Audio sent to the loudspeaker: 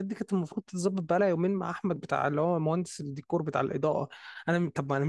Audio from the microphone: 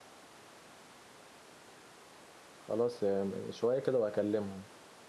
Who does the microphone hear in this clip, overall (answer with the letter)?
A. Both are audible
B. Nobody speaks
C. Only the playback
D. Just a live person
D